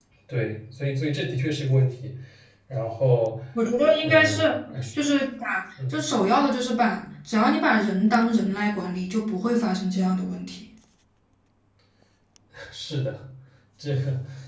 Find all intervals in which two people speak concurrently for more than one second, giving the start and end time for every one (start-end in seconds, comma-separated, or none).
none